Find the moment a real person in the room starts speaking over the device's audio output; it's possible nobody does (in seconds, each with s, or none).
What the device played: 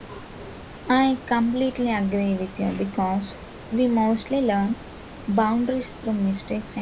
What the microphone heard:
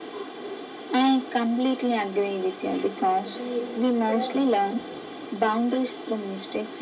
3.3 s